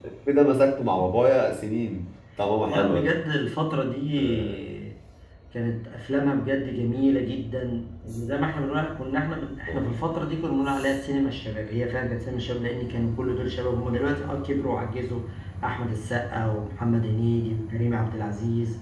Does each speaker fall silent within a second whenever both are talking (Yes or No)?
Yes